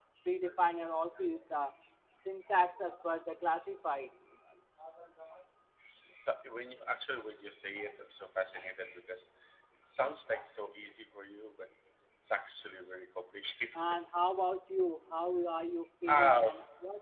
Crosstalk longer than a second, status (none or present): none